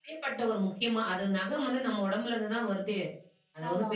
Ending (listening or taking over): listening